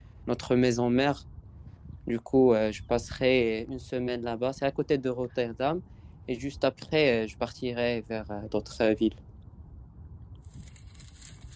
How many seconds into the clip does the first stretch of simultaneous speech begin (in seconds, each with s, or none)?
none